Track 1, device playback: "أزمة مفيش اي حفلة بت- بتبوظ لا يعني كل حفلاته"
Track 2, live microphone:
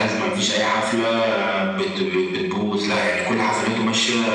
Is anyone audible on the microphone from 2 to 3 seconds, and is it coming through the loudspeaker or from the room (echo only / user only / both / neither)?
echo only